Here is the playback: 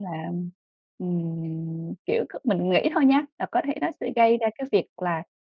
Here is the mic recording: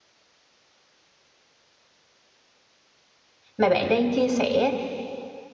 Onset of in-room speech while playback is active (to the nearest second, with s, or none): 4 s